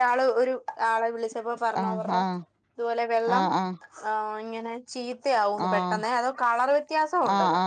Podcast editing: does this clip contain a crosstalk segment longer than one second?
No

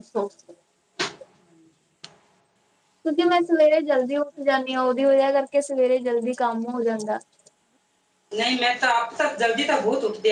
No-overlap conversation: Yes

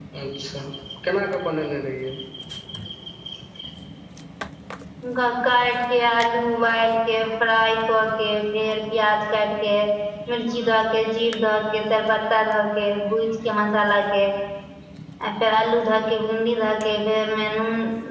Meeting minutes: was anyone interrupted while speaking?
No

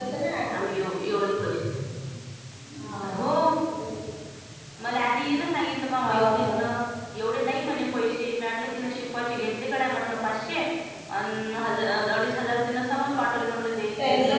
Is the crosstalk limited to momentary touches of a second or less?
Yes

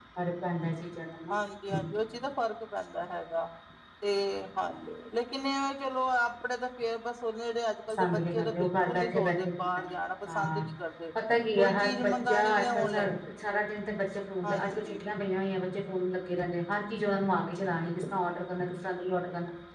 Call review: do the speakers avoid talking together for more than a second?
No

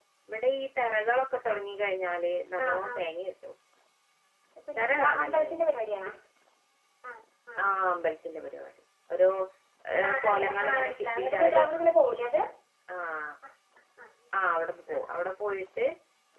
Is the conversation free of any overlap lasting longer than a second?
No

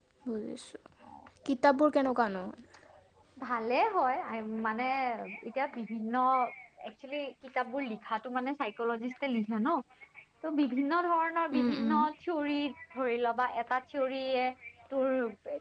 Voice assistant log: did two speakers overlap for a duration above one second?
No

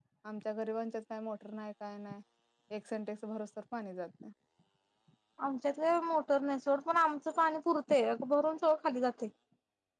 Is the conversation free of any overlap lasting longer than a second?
Yes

